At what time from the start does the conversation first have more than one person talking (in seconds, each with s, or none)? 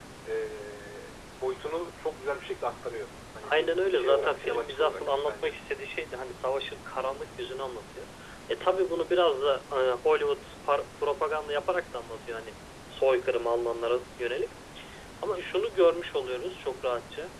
3.4 s